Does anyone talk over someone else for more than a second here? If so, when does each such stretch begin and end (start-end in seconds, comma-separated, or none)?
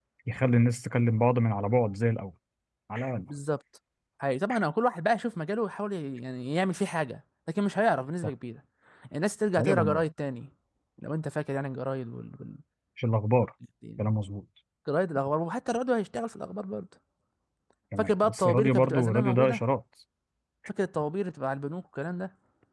18.0-19.6